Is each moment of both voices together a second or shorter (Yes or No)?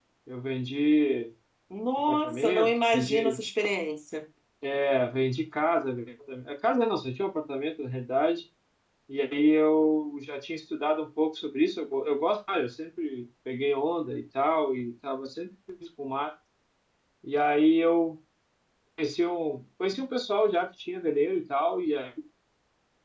No